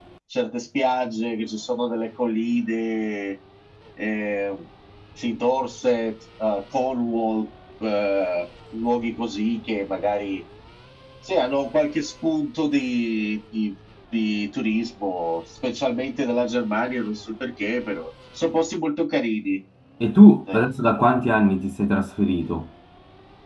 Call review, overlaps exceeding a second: none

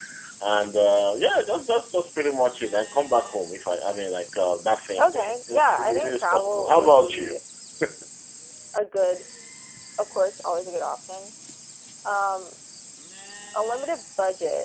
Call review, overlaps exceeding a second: present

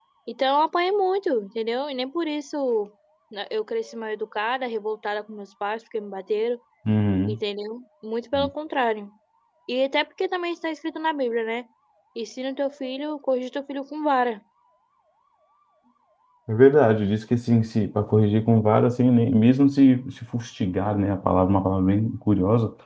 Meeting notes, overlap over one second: none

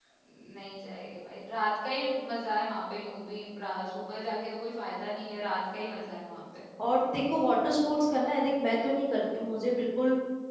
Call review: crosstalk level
none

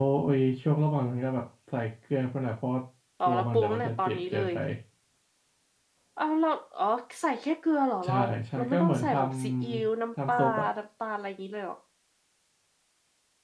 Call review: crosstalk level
present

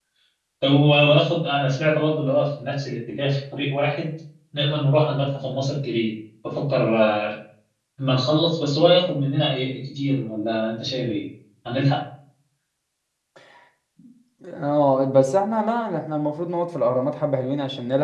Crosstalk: none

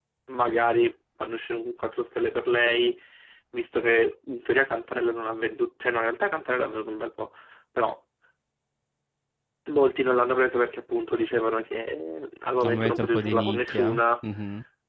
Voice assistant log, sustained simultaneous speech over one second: present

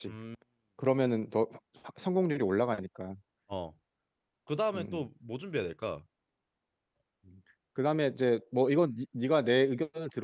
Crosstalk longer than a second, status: none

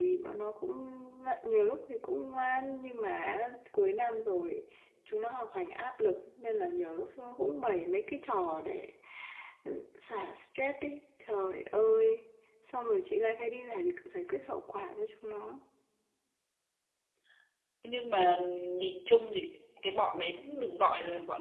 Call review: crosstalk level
none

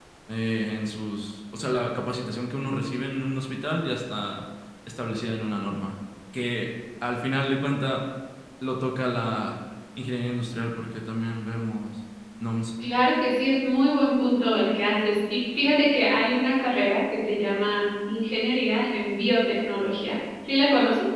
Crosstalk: none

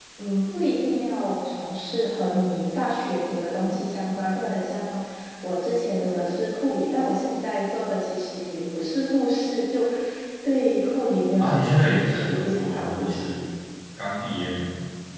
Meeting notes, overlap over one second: present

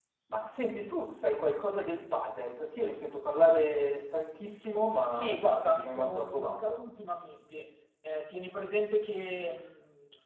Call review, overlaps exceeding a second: present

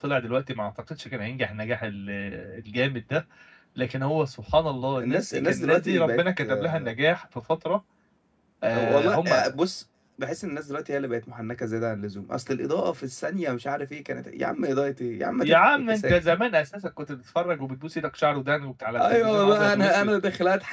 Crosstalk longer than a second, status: present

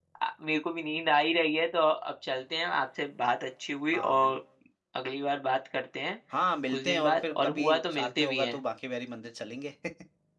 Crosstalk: present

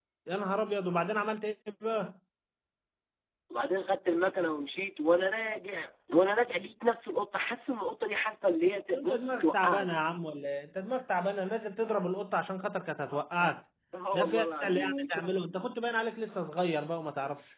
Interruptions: present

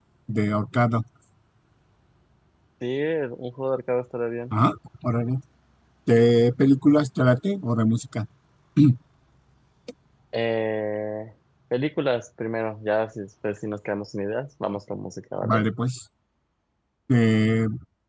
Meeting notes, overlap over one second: none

